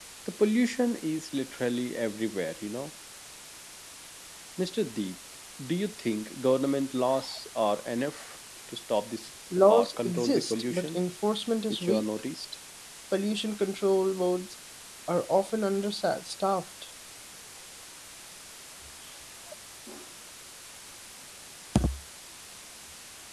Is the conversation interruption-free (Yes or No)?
No